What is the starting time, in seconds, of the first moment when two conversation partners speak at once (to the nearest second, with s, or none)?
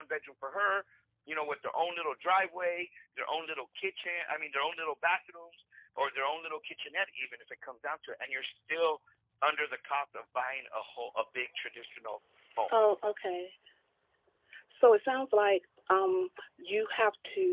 none